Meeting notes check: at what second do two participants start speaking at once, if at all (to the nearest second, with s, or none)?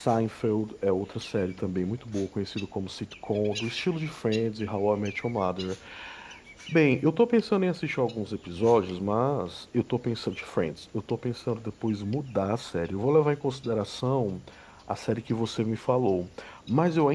none